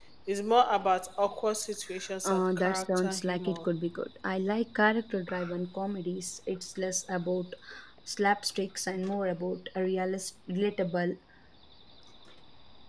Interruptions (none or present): present